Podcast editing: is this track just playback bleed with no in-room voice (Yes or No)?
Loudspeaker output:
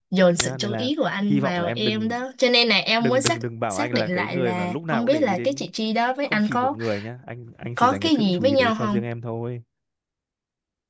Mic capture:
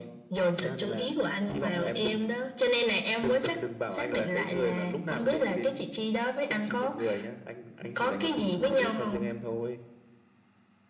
Yes